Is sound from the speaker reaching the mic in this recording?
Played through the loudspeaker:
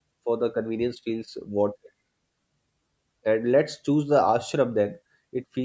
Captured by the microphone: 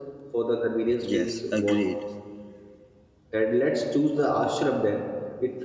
Yes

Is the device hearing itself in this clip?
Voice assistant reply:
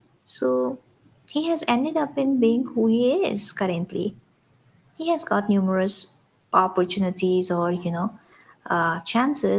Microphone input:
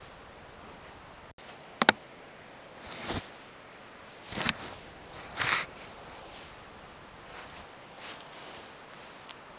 No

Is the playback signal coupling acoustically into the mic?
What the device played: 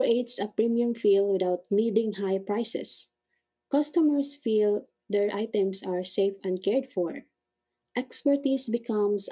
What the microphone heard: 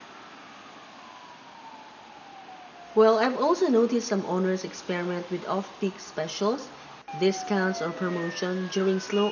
No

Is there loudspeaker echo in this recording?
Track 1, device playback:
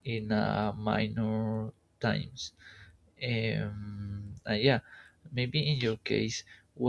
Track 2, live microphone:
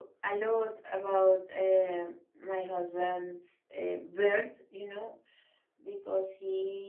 No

